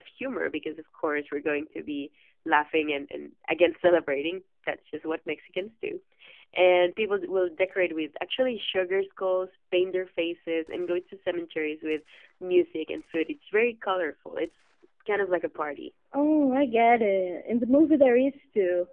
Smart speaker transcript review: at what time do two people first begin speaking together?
none

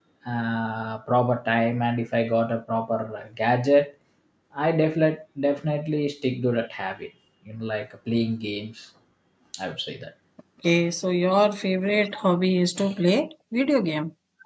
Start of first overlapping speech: none

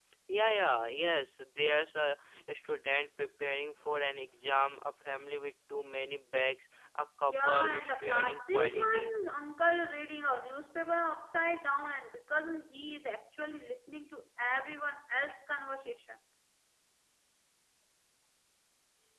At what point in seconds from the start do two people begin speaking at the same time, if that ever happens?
7.3 s

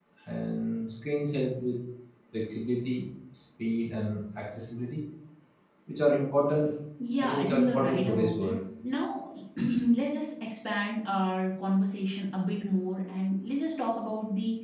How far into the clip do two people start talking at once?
7.2 s

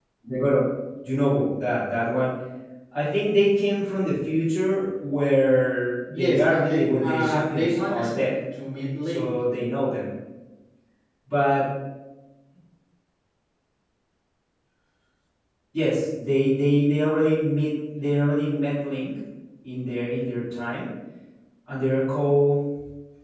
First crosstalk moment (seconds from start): 6.1 s

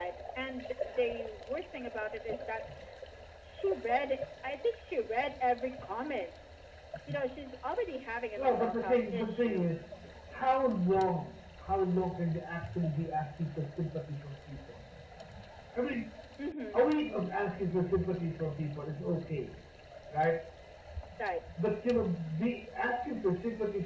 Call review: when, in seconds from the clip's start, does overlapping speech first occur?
8.4 s

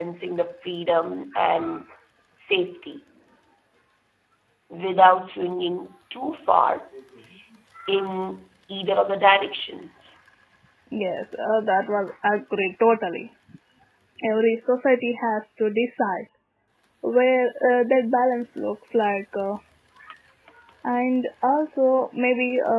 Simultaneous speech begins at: none

